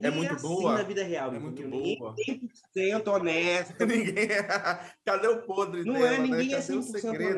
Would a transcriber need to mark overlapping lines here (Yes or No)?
Yes